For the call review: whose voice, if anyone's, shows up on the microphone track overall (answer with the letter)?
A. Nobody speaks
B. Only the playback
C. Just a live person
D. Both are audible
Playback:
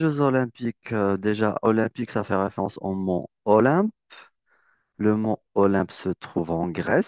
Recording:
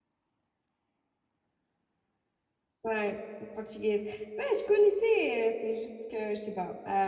C